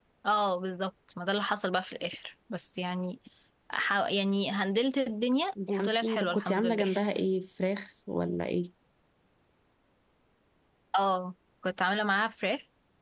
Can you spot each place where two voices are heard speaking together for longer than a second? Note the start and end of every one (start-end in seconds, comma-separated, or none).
5.7-6.9